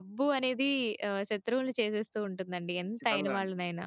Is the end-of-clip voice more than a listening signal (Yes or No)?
Yes